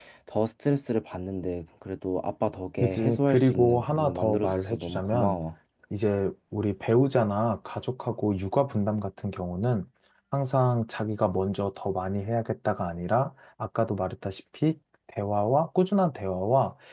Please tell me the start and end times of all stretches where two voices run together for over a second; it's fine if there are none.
2.8-5.4

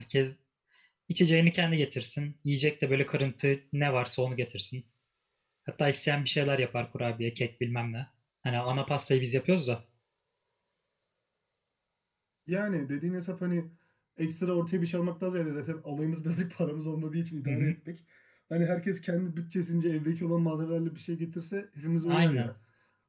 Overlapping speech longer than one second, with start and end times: none

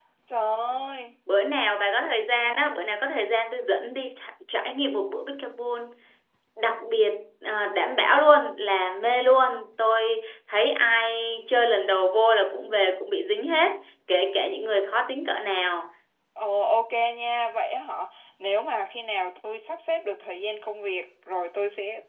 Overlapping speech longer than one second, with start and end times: none

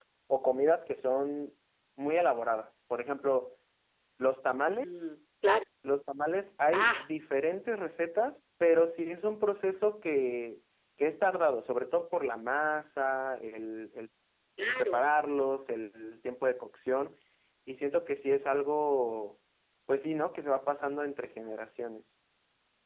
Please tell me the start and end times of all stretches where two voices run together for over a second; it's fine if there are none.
none

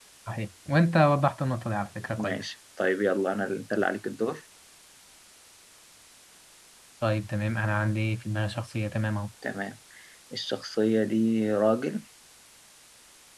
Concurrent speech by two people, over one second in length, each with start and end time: none

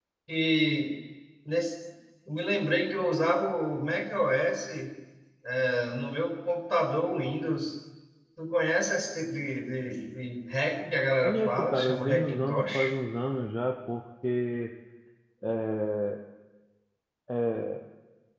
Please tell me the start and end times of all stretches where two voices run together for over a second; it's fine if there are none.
11.2-12.9

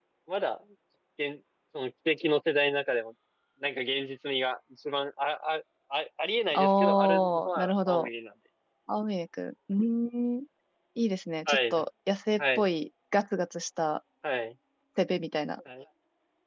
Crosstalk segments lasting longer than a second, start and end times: 6.5-8.1

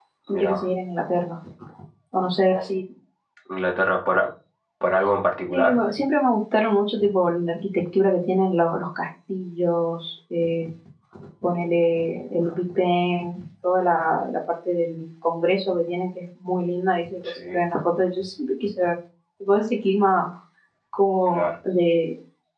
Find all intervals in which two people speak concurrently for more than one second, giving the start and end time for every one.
none

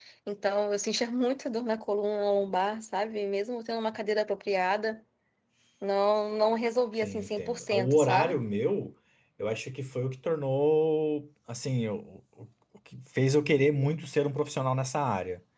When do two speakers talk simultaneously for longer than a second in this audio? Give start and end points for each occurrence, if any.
7.0-8.3

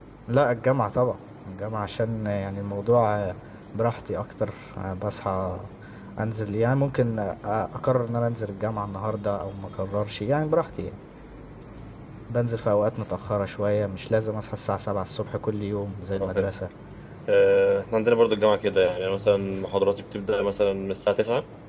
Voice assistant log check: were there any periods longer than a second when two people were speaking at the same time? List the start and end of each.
none

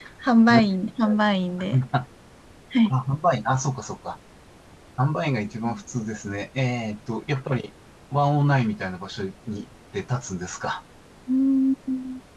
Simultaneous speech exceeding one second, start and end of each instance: none

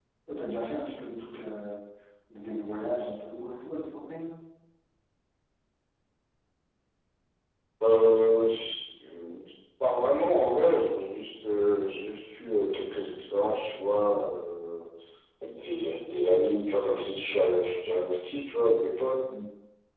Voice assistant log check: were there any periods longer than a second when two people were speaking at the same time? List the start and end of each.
none

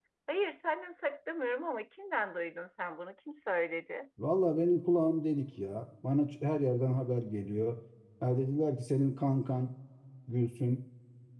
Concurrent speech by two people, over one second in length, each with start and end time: none

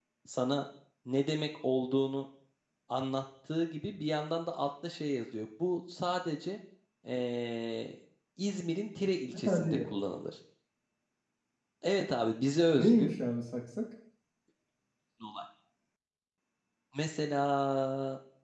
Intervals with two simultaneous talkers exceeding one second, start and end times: none

